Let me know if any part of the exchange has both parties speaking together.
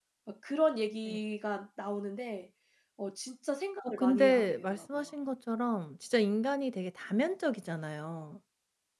Yes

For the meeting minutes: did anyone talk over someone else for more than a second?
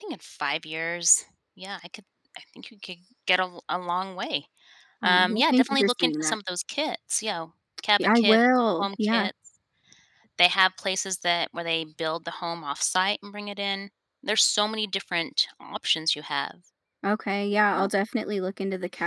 Yes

